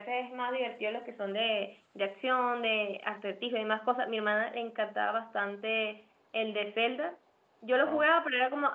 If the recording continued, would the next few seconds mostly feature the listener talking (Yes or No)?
No